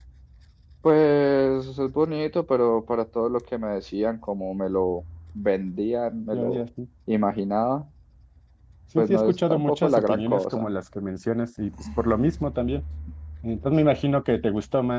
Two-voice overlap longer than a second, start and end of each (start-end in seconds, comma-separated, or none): 9.0-10.7